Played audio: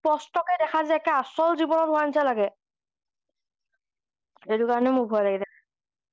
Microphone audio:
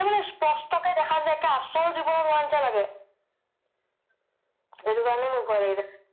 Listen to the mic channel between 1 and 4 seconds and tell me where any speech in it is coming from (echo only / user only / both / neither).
echo only